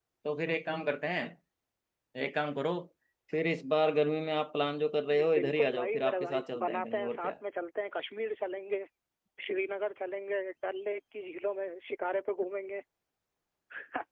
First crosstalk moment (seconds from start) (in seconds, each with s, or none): 5.4 s